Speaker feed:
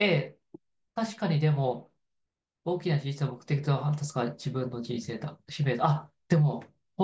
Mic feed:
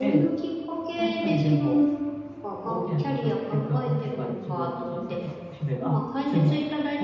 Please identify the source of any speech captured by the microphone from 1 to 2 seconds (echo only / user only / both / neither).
both